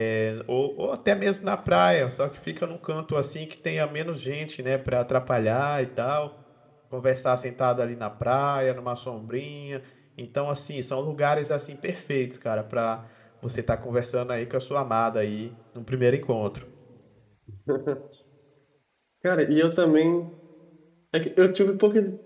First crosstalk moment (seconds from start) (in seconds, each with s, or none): none